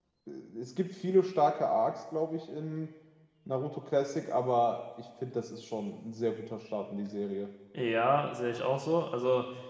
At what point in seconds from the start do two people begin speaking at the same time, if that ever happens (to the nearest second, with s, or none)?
none